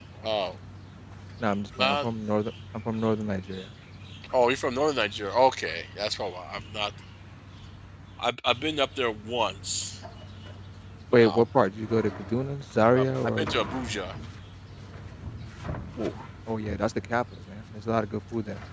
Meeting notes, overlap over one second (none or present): none